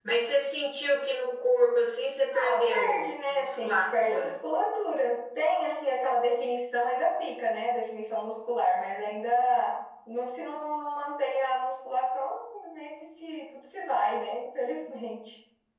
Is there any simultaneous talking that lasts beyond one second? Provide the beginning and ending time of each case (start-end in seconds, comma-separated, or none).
2.3-4.3